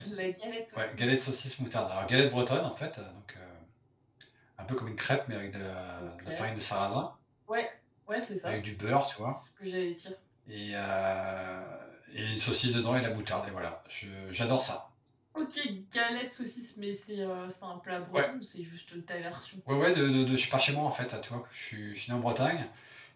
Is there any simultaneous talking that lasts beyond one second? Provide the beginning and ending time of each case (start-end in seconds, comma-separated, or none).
none